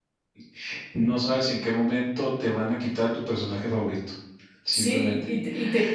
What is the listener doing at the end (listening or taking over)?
taking over